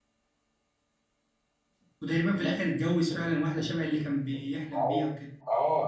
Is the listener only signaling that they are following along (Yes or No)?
No